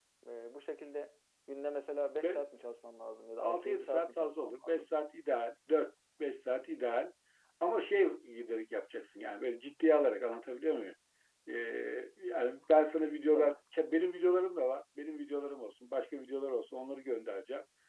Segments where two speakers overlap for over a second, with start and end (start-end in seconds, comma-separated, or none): 3.4-4.8